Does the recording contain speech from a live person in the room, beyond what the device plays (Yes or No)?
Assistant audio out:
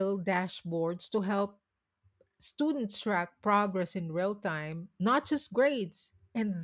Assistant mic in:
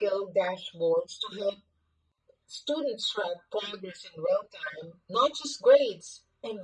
No